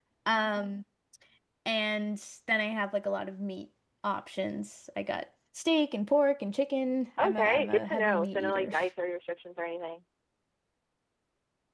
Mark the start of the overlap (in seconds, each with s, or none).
7.2 s